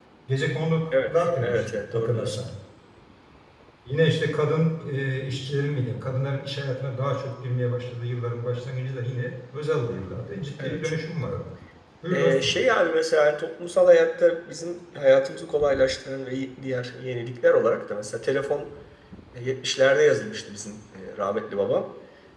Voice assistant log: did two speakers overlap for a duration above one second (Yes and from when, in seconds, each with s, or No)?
Yes, from 1.1 s